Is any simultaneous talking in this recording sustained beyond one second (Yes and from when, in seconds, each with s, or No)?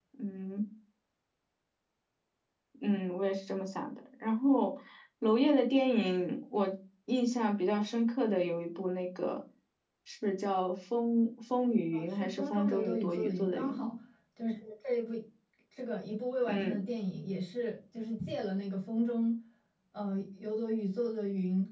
Yes, from 11.9 s